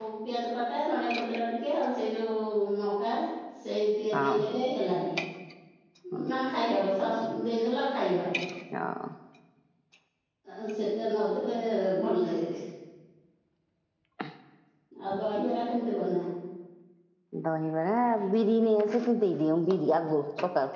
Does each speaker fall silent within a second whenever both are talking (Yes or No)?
Yes